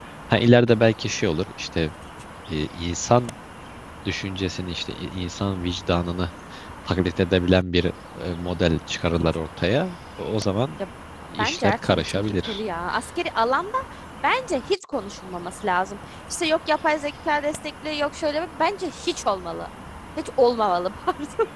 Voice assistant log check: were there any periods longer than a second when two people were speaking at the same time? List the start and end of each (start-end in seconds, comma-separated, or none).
11.4-12.6